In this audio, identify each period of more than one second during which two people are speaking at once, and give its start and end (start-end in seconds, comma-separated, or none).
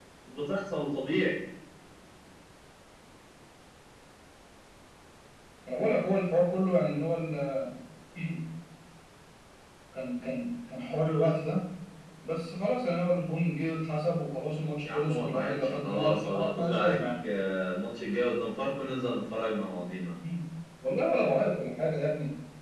14.8-17.0